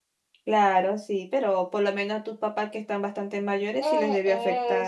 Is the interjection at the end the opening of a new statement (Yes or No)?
Yes